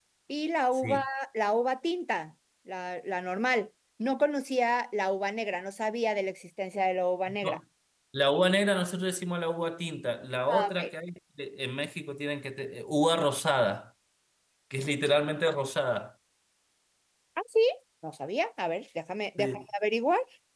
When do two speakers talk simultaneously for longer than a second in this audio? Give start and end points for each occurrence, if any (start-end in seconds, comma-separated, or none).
none